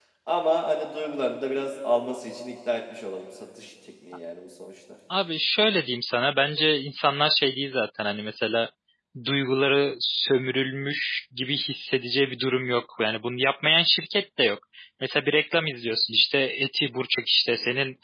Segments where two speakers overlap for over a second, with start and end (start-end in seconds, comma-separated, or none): none